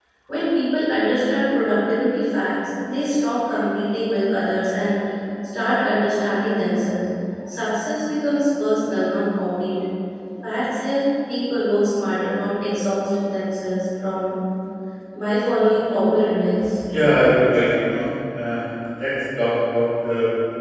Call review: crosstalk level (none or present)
none